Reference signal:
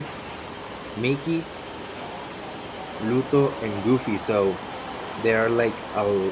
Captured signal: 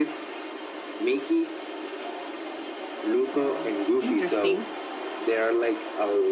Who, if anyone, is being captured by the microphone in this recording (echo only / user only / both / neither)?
both